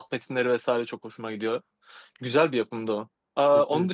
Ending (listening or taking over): listening